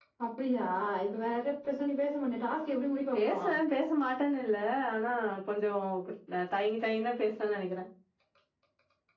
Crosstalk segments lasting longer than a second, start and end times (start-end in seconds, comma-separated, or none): none